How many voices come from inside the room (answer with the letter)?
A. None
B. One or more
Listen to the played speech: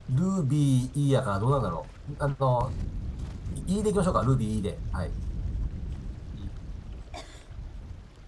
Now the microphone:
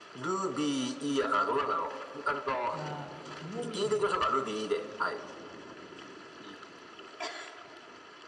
B